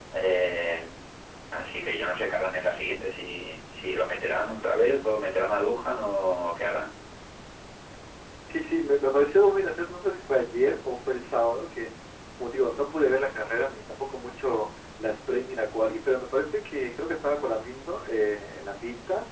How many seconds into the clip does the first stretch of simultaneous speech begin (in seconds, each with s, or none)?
none